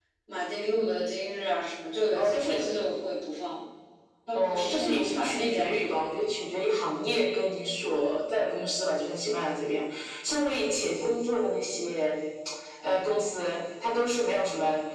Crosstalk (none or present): present